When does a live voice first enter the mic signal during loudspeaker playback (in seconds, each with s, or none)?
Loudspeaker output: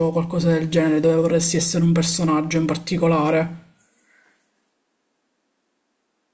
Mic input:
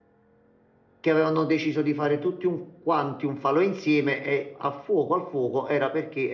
1.0 s